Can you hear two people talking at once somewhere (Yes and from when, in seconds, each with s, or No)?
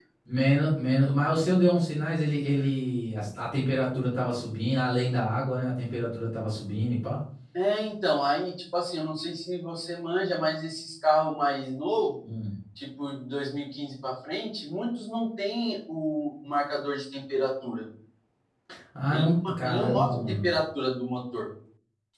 Yes, from 19.1 s